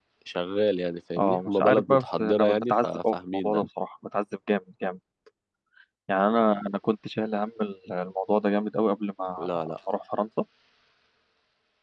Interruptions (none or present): present